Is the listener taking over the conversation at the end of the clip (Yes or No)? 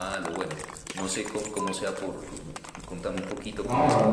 Yes